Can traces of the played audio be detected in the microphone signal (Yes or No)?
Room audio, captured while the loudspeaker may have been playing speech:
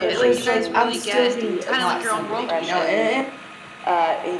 Yes